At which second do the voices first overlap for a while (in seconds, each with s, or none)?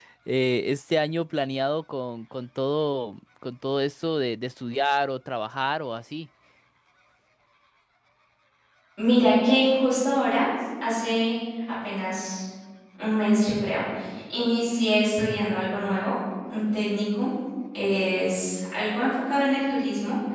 none